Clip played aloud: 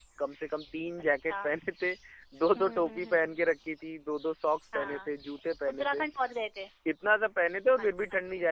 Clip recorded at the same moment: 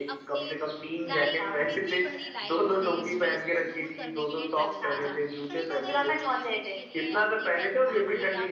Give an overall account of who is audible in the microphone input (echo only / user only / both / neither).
both